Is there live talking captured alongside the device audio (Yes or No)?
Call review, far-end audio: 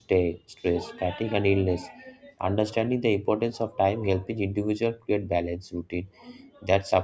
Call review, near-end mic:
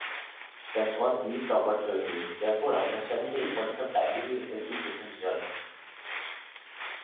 Yes